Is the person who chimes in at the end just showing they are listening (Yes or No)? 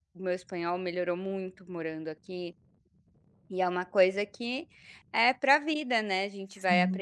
Yes